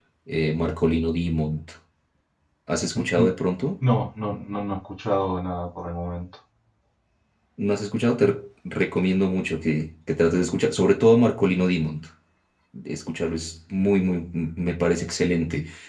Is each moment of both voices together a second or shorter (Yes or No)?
Yes